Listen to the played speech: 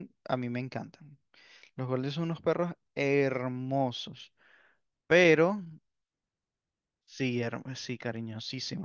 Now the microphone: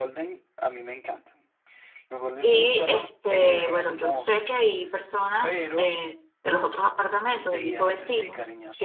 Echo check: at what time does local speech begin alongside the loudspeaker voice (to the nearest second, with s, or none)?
2 s